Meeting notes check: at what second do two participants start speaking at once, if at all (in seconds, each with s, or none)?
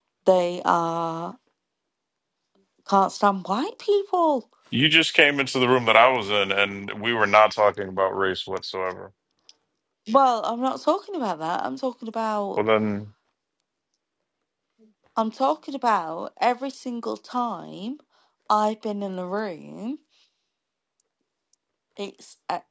none